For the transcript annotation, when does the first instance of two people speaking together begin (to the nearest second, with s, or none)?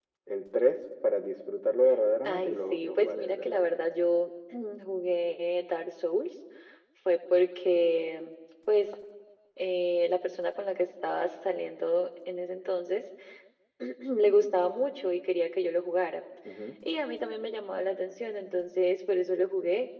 2 s